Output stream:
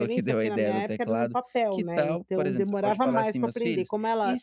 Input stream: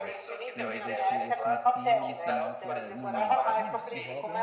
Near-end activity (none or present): present